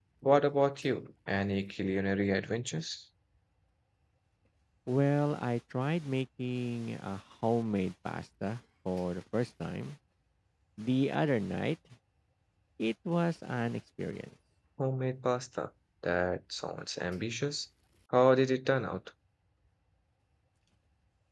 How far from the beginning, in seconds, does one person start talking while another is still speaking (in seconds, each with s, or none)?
none